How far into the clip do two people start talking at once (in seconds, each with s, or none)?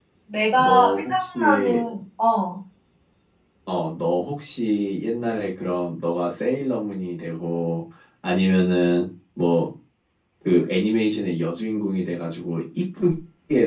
0.6 s